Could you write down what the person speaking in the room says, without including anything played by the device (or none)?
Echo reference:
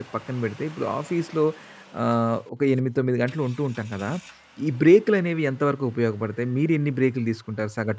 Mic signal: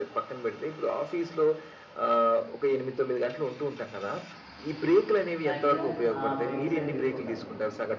మాక్సిమం ఆ బ్రేక్ససవి తీసుకుంటాను.